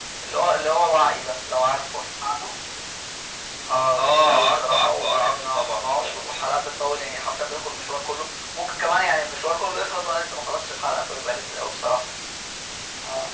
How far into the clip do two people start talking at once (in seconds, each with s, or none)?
4.0 s